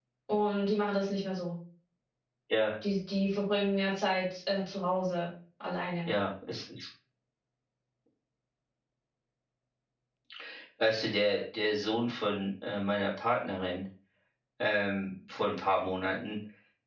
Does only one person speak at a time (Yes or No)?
Yes